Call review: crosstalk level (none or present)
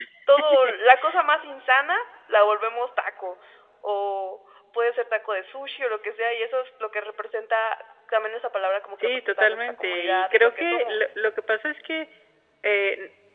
present